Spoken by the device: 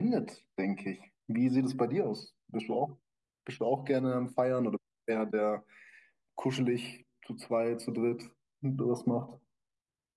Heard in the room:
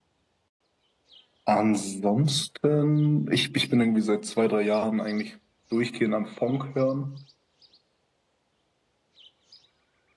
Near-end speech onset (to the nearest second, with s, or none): 1 s